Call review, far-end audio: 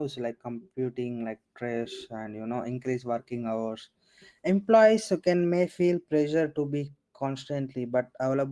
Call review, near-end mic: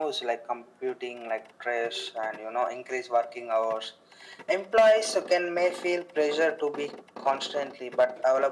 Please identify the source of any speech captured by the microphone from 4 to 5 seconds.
echo only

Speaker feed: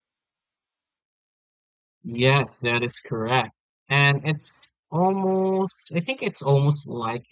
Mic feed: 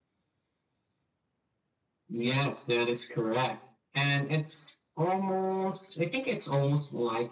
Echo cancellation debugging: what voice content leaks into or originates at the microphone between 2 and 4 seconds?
echo only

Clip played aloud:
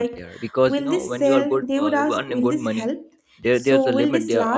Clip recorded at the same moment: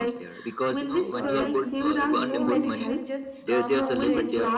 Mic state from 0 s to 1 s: echo only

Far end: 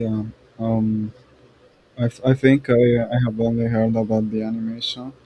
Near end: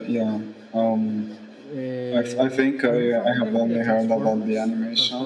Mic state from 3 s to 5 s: both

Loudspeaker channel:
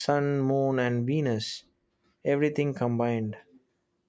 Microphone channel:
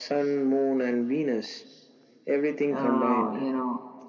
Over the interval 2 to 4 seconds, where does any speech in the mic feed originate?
both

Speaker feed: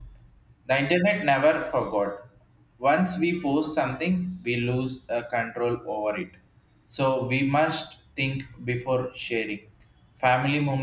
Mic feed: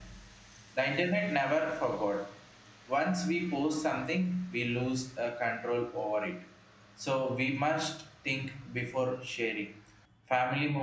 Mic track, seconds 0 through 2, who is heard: echo only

